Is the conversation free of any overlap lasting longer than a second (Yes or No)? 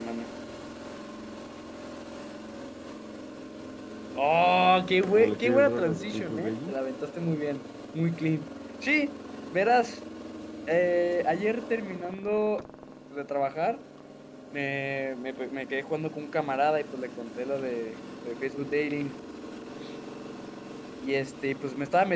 No